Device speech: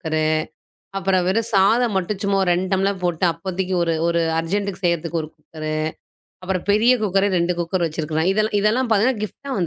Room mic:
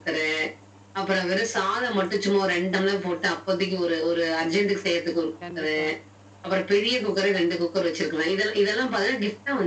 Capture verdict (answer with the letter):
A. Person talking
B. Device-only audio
A